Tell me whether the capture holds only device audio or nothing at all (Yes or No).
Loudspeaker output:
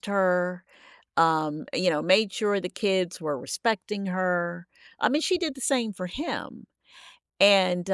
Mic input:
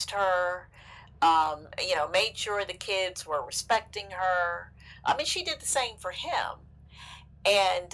Yes